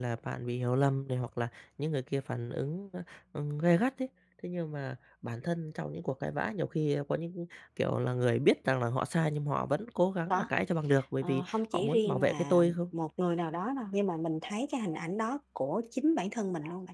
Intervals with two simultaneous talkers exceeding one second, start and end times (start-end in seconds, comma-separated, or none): 11.2-12.8